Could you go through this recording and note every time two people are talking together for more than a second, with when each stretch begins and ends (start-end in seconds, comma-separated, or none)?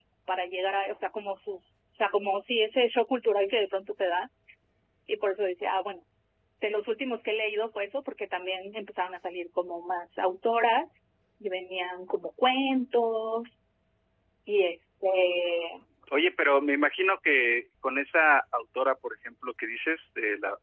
none